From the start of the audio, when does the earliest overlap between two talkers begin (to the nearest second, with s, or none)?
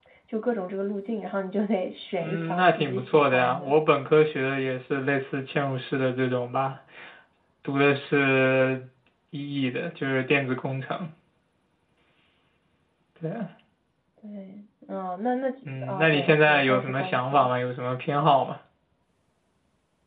2 s